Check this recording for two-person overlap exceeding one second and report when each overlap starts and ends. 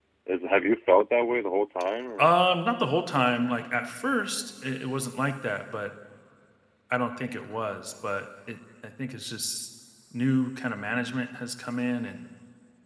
none

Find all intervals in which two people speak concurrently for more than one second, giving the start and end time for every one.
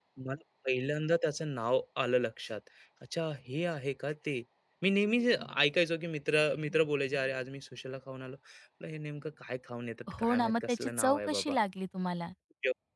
10.2-11.6

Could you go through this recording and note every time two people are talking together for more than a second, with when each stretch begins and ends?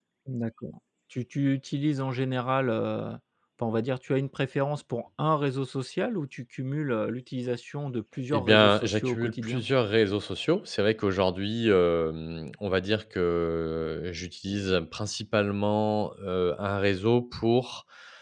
8.3-9.6

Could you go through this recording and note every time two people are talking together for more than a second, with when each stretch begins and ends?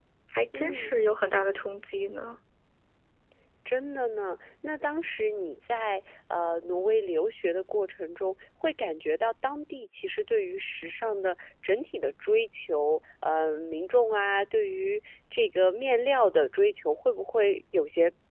none

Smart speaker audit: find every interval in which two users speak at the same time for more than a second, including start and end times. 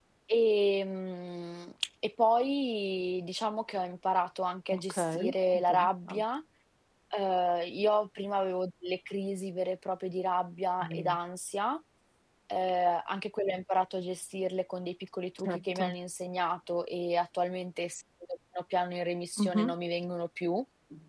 4.7-6.2

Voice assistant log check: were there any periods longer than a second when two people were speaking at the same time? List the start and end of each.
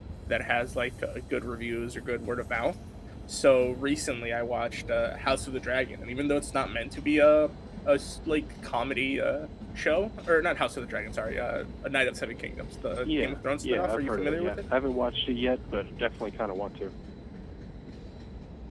13.1-14.6

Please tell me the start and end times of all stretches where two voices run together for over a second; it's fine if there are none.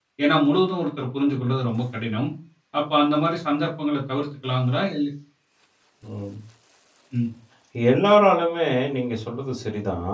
none

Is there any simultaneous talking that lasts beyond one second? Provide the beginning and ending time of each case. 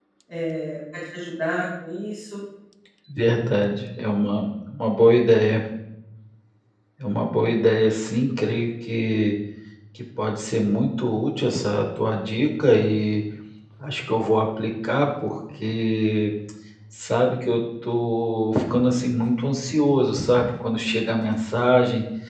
none

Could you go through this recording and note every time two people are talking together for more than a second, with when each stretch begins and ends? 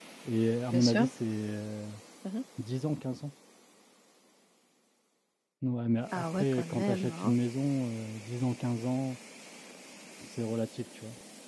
6.1-7.3

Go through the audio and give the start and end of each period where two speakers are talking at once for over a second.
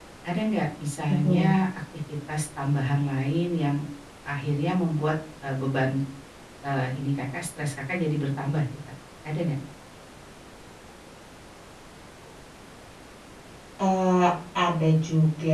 none

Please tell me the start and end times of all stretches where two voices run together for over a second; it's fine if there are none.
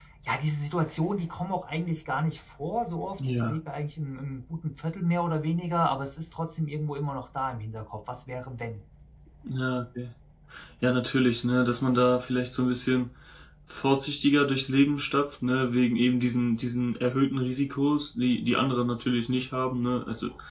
none

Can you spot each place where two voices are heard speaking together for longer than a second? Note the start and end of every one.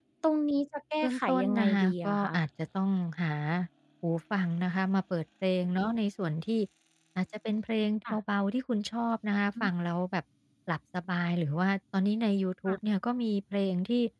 1.0-2.3

